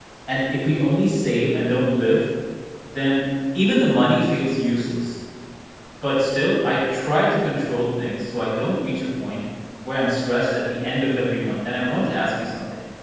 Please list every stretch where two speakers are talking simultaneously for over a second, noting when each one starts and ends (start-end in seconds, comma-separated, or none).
none